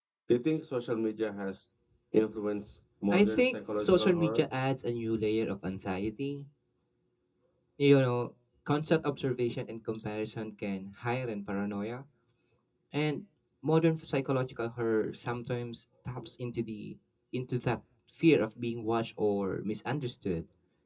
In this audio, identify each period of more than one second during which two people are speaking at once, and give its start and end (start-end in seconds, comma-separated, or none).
3.1-4.5